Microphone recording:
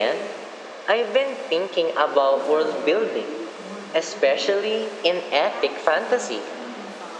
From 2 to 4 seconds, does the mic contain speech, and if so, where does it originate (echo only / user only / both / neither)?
both